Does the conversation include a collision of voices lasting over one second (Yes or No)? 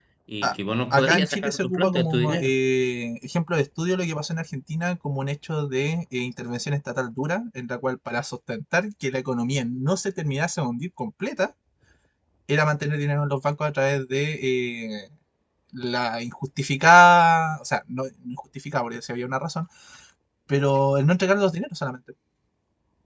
Yes